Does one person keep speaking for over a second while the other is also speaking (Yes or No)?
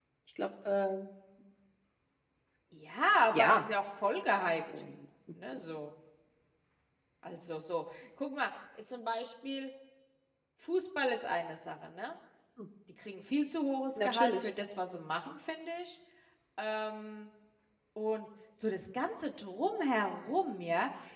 No